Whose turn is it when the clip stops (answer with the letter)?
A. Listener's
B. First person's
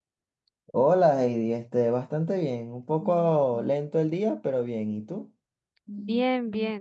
A